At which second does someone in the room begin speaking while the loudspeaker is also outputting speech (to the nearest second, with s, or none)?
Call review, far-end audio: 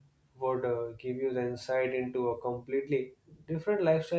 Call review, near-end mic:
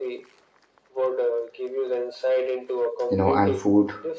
3 s